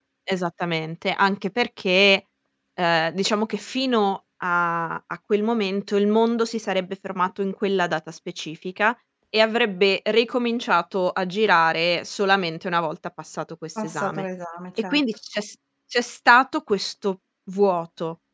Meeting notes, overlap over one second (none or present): none